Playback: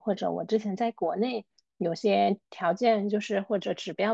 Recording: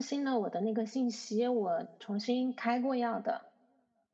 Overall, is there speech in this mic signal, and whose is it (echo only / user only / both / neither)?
user only